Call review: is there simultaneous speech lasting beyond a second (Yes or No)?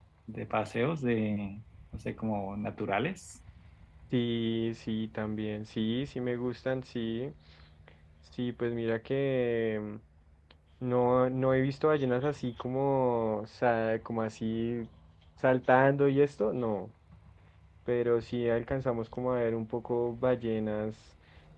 No